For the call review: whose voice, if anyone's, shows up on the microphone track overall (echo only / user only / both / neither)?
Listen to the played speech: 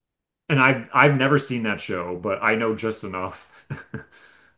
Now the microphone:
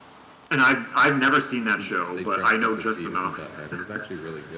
both